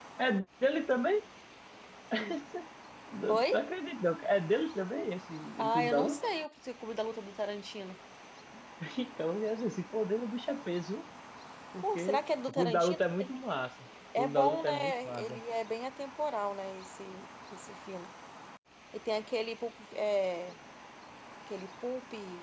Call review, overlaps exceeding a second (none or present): present